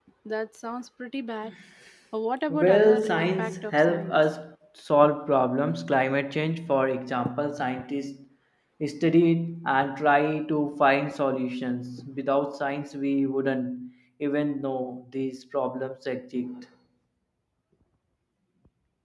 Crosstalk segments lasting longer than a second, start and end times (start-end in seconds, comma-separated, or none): 2.5-4.2